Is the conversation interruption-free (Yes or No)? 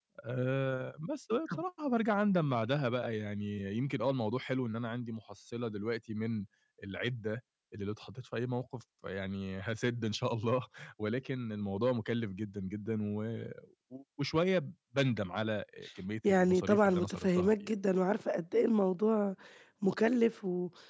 No